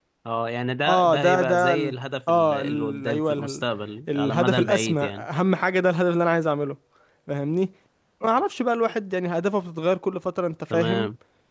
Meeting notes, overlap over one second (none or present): present